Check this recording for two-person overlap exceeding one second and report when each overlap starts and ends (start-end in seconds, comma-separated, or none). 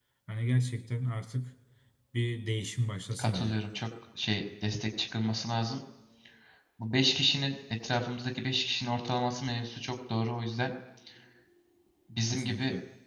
none